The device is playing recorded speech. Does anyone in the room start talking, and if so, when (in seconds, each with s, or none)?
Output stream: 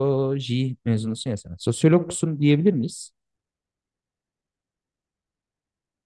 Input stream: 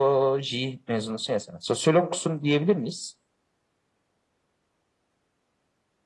none